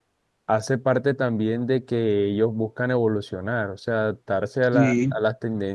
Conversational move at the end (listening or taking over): listening